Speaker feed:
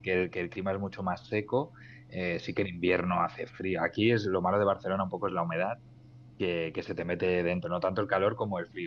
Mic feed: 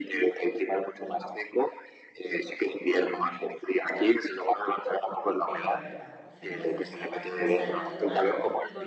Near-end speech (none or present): present